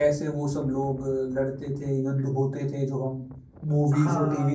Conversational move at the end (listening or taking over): taking over